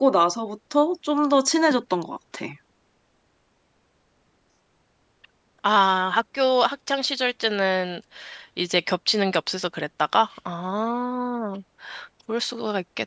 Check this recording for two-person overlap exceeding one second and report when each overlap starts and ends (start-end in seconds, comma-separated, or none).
none